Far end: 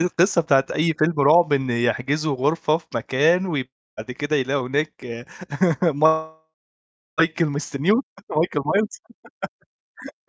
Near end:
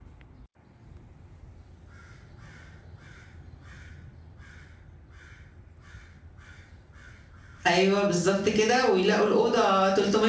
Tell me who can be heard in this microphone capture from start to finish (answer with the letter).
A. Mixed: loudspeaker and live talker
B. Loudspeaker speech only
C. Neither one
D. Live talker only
D